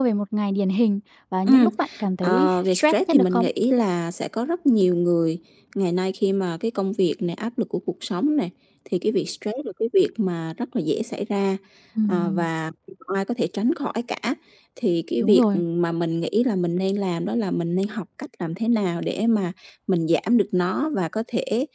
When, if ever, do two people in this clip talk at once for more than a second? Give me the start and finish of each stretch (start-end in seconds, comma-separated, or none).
2.2-3.5